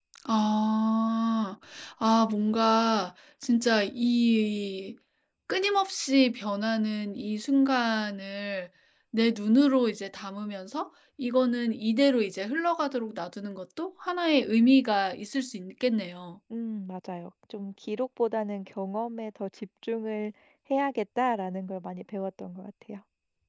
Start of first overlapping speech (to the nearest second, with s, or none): none